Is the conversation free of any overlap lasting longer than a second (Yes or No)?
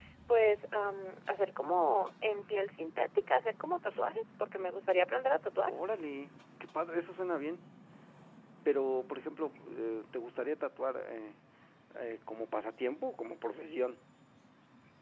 Yes